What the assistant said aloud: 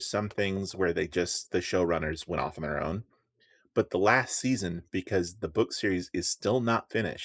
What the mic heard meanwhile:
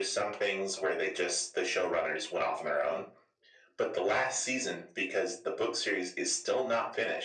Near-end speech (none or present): none